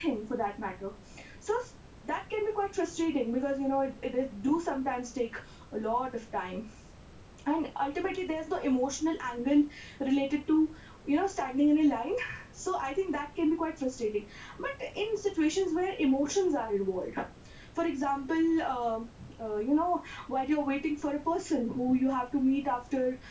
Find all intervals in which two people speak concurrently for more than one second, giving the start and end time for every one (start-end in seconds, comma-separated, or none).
none